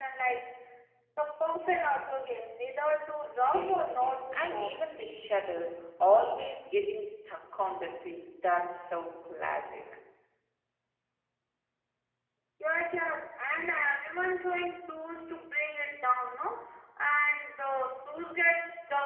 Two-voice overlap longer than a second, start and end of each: 3.4-4.7

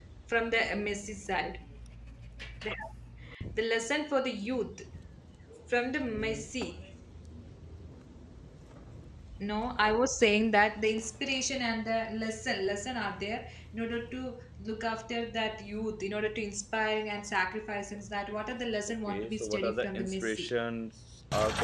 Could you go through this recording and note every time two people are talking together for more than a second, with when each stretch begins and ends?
19.1-20.5

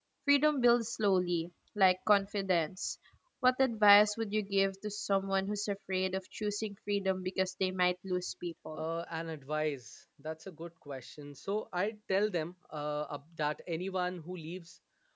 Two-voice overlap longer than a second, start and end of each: none

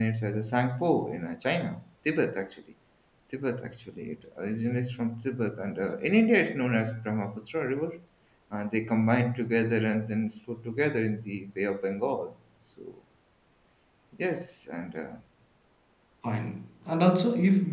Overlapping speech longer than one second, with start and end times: none

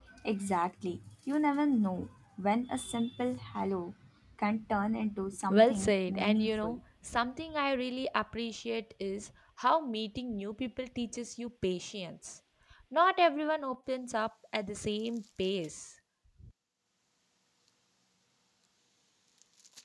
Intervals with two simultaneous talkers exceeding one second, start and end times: 5.5-6.8

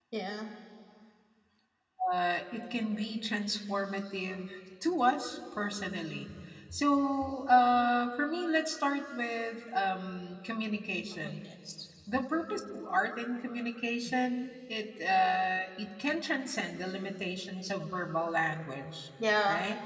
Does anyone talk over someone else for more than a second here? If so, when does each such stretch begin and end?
none

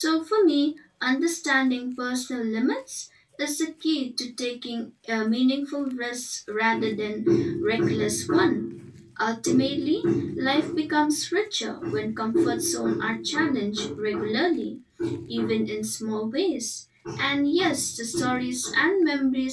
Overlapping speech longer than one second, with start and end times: none

